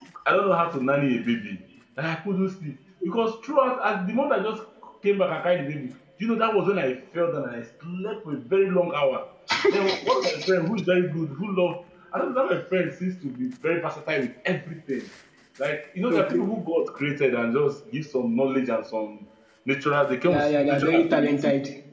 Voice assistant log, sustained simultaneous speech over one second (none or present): present